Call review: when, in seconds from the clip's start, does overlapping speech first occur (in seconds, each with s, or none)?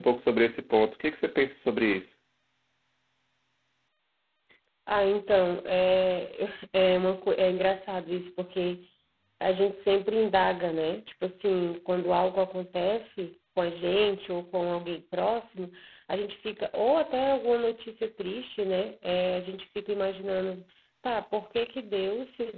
none